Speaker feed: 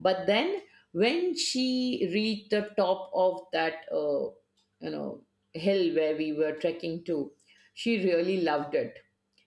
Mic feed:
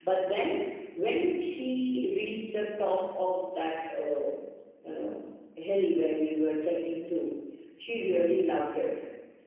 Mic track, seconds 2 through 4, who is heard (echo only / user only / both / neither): echo only